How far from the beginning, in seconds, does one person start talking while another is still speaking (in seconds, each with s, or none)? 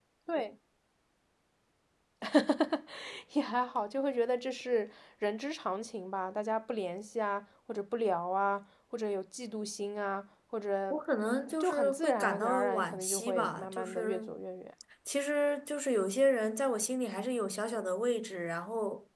11.6 s